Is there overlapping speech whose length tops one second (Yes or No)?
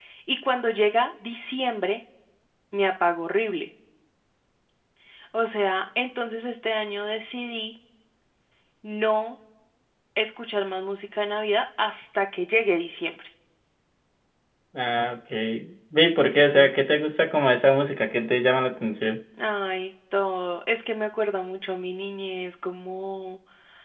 No